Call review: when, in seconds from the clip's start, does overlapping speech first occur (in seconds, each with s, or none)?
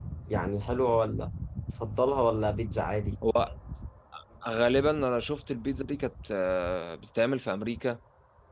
none